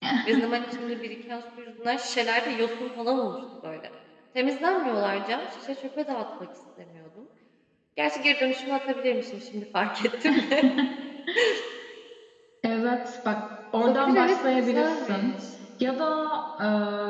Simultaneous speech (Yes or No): Yes